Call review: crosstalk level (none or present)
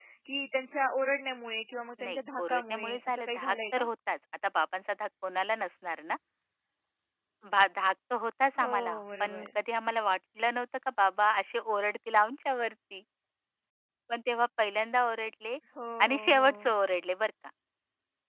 present